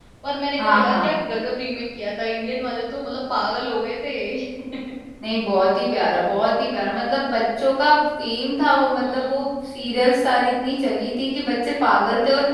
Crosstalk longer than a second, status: none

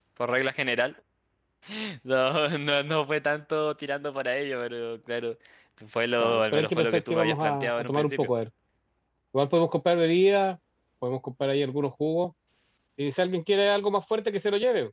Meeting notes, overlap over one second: present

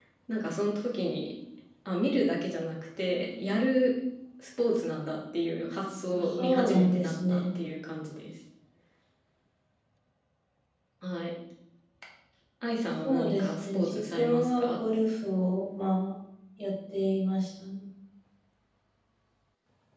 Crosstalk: present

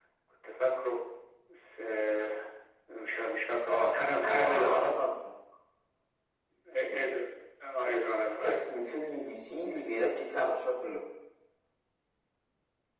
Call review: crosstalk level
present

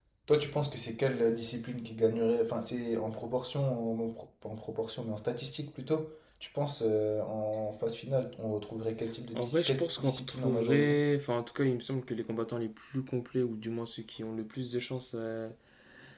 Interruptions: present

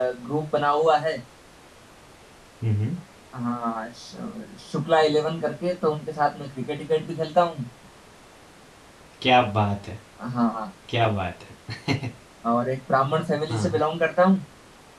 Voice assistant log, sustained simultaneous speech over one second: none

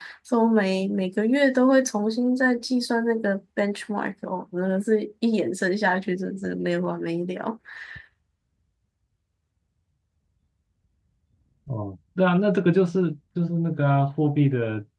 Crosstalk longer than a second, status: none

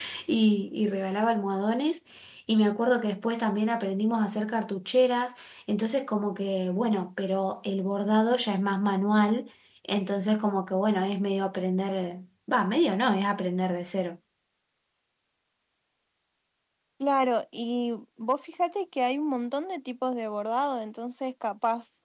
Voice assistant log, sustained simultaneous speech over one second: none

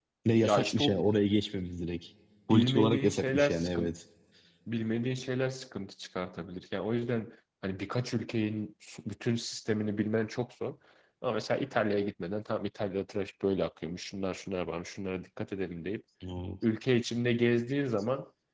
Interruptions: present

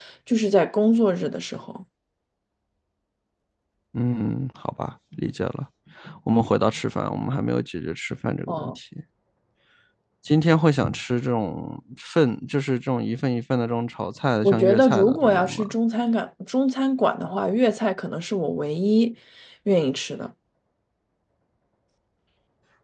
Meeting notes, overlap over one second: present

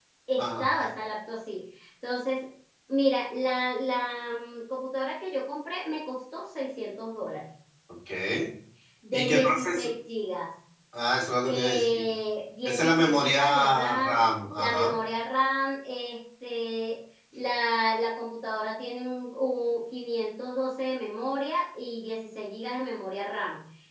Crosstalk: present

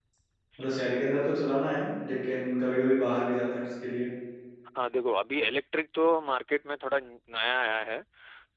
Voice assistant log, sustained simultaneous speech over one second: none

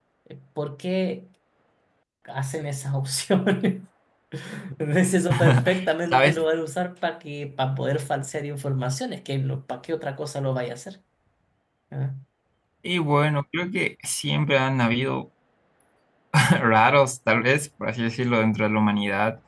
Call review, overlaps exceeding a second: none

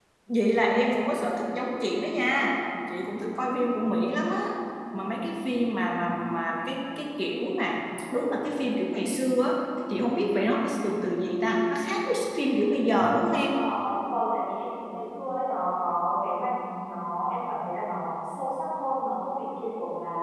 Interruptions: none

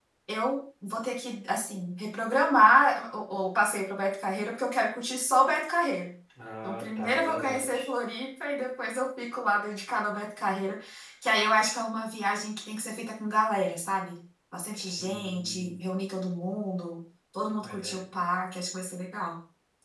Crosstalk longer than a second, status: present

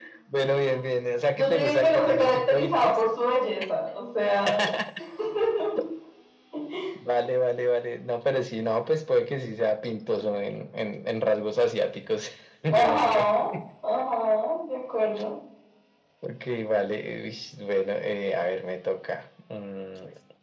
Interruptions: present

